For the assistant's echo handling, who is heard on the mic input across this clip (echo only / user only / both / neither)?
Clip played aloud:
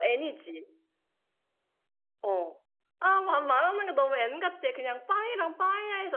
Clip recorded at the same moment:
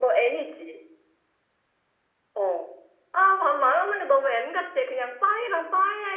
echo only